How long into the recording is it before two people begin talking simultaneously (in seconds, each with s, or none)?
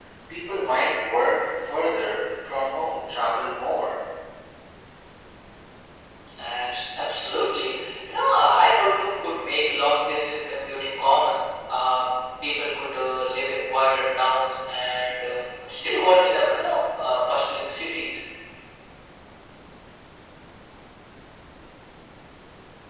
none